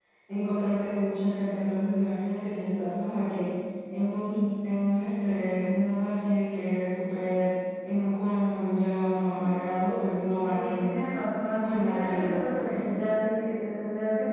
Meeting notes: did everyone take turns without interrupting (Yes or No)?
No